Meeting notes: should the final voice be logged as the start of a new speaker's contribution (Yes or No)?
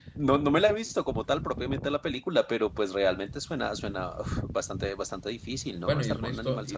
Yes